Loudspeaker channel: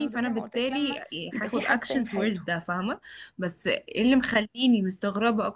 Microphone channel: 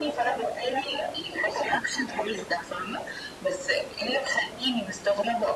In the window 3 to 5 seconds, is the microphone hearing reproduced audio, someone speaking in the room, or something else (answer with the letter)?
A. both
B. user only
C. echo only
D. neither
C